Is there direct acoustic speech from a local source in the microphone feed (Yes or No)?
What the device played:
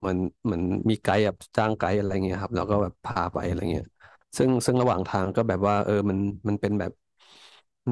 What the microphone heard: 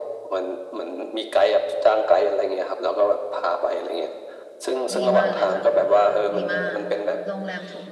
Yes